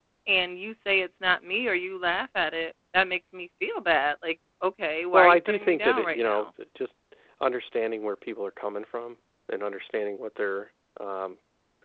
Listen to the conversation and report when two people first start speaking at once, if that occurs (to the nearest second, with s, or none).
5 s